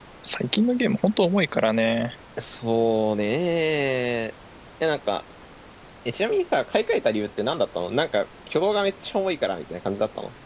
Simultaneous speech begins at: none

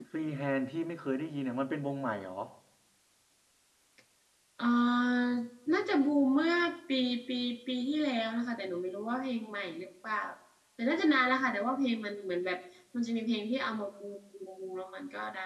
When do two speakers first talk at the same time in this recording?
none

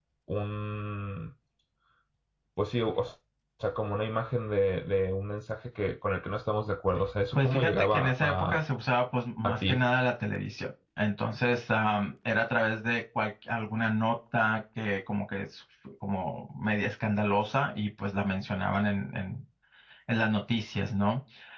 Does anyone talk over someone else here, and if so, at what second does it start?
7.3 s

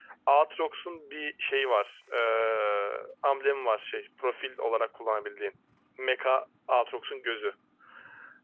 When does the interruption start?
none

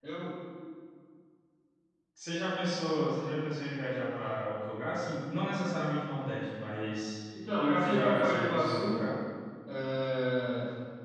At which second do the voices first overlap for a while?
7.8 s

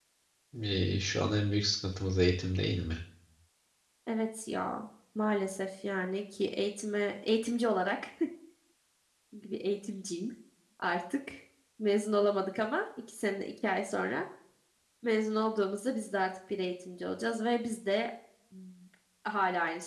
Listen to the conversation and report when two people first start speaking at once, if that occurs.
none

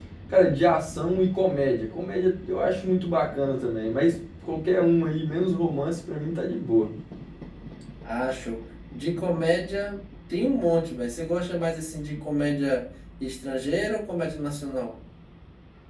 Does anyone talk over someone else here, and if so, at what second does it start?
none

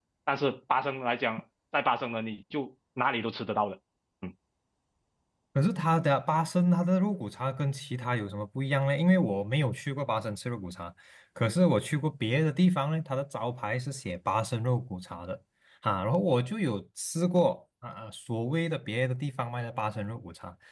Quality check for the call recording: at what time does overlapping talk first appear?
none

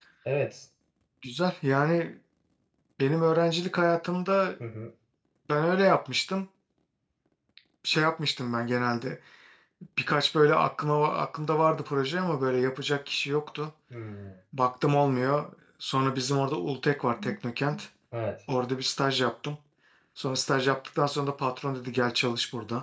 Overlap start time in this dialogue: none

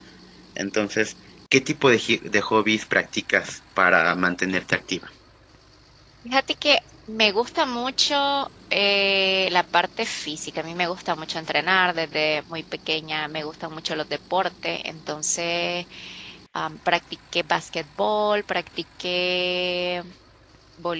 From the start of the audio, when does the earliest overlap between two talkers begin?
none

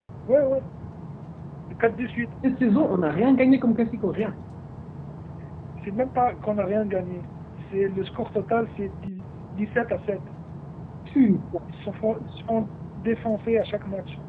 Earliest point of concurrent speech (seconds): none

